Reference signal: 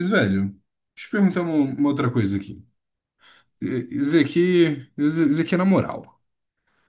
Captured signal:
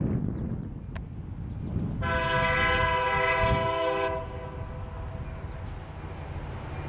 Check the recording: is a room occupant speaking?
No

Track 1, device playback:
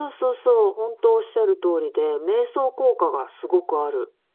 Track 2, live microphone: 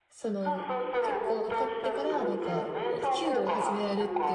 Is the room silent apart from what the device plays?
No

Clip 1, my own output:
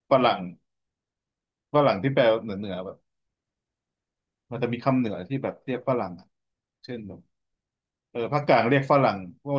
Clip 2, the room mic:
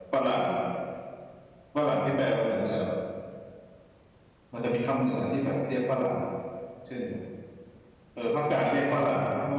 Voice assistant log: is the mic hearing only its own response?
No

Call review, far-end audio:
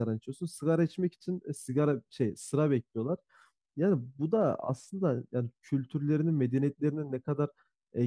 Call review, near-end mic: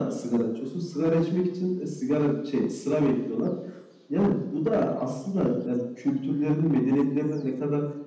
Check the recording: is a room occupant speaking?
No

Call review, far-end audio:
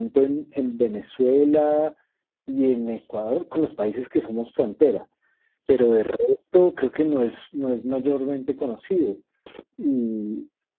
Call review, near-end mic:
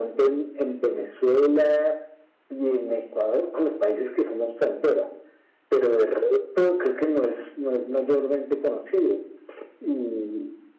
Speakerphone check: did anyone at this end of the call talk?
No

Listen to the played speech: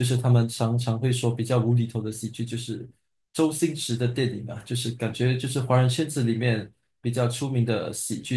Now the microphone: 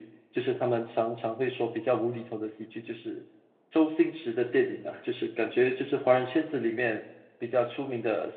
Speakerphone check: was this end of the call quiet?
Yes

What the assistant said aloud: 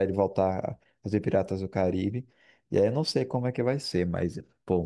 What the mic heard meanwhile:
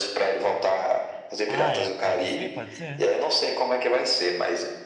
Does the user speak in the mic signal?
Yes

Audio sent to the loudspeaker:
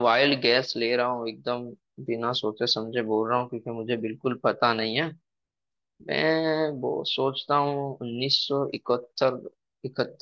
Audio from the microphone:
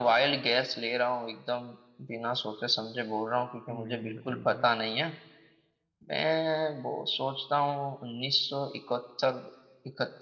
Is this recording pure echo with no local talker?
No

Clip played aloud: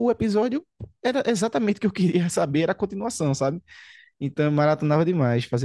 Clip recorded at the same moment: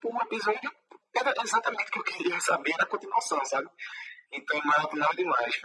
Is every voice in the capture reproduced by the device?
Yes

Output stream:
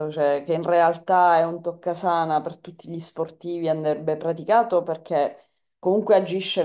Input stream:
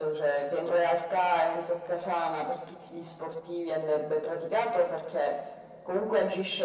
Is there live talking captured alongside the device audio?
No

